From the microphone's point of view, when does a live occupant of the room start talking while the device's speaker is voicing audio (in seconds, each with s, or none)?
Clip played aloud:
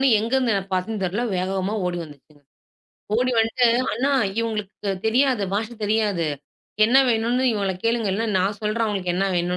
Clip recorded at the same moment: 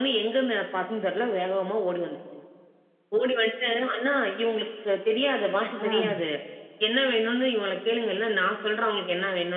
5.8 s